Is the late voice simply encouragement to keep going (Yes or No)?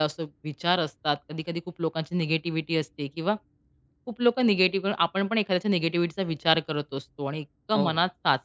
Yes